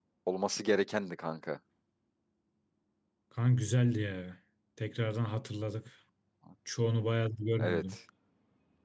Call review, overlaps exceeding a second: none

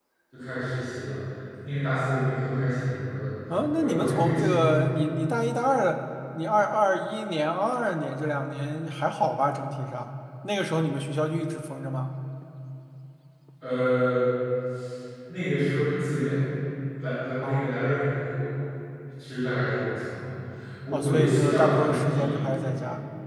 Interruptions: present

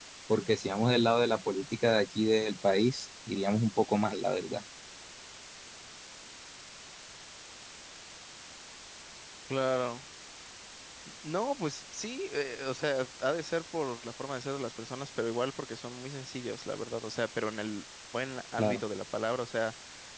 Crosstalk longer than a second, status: none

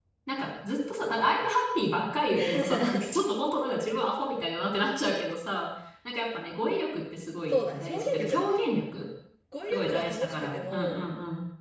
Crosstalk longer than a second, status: present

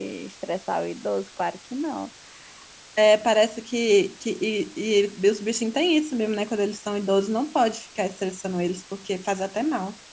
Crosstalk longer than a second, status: none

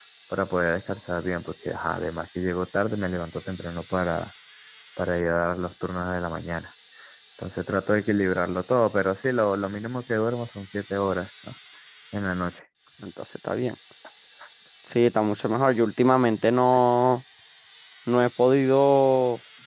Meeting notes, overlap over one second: none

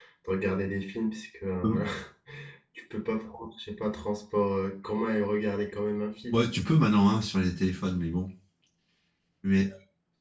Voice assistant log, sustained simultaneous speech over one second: none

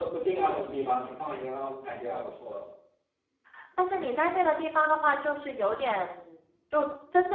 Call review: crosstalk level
none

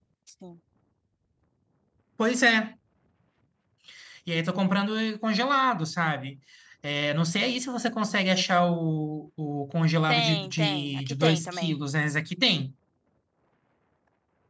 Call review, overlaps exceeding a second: present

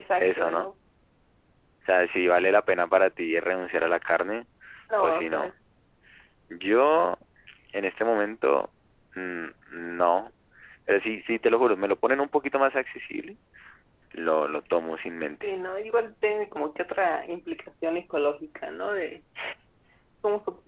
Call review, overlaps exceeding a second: none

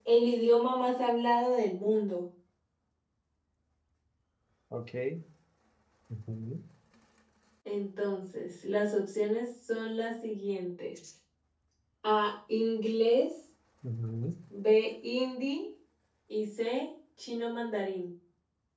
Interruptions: none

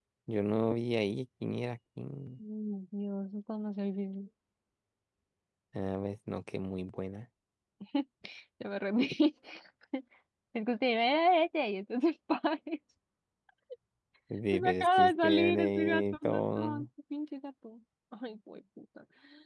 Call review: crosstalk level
present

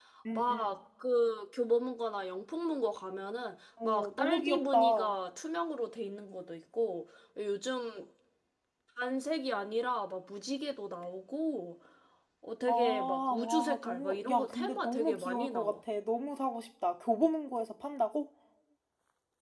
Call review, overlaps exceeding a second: present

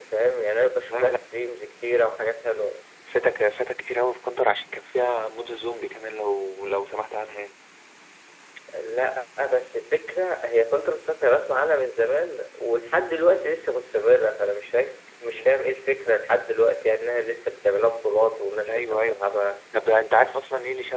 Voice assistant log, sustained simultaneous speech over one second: none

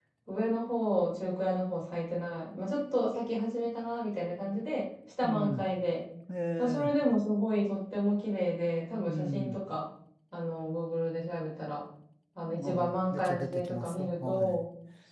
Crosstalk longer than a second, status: present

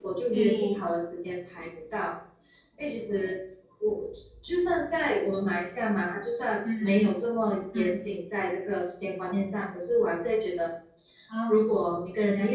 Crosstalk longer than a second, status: none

